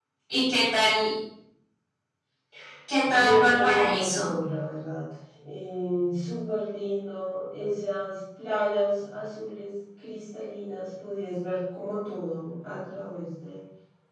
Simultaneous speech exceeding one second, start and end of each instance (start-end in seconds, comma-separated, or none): 3.1-4.3